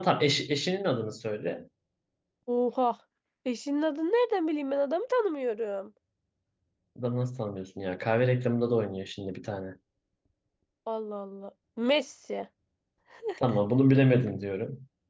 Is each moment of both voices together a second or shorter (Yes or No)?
Yes